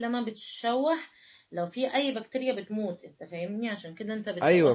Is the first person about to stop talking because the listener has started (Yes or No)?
Yes